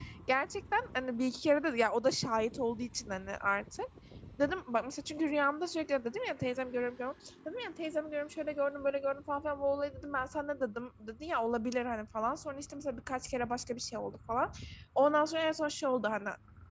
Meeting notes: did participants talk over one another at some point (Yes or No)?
No